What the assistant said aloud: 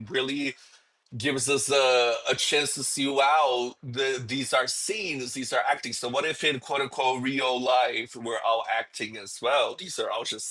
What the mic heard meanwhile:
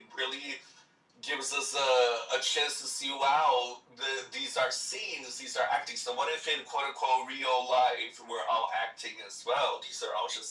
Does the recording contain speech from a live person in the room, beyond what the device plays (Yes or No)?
No